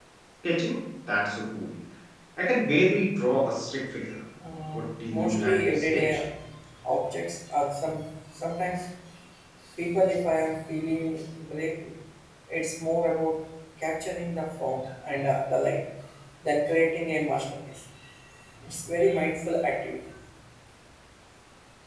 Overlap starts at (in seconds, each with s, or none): 4.7 s